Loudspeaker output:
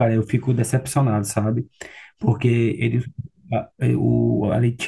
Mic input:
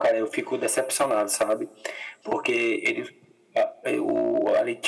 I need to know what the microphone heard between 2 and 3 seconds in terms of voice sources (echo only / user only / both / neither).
echo only